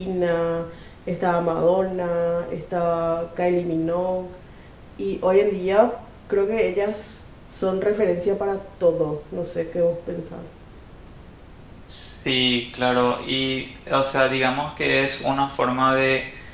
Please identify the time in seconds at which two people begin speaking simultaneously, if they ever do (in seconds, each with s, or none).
none